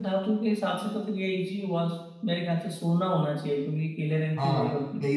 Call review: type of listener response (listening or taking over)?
taking over